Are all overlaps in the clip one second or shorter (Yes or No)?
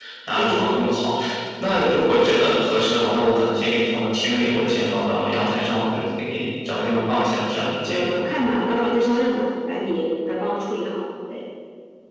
Yes